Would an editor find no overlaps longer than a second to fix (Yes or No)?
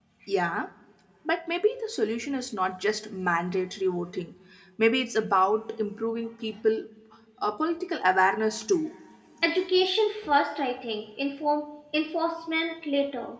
Yes